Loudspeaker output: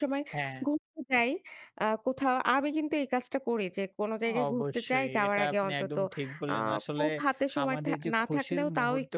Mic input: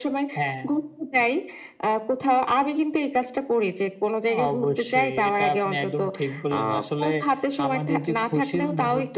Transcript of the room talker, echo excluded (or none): none